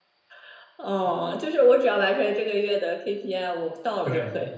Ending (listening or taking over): taking over